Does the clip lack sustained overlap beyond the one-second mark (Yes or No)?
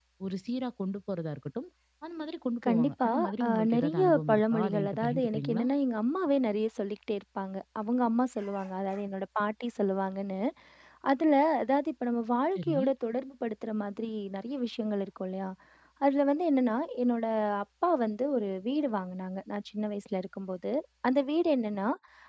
No